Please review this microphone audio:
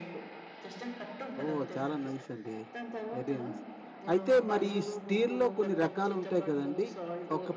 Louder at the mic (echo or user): user